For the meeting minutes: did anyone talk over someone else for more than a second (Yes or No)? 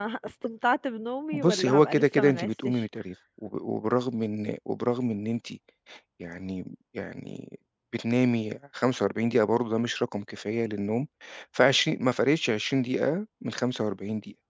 Yes